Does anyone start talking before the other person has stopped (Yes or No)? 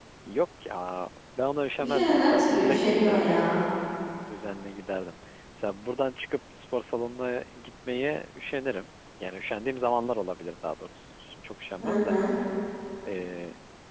Yes